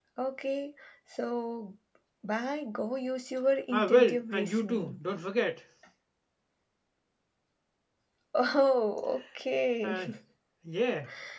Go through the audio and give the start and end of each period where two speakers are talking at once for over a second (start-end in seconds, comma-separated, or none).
3.7-5.0